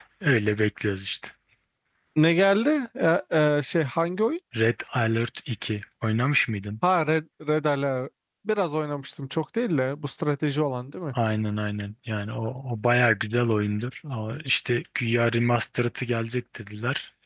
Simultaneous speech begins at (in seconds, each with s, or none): none